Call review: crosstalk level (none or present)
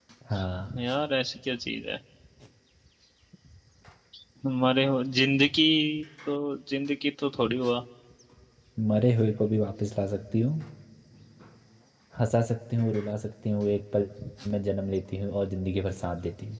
none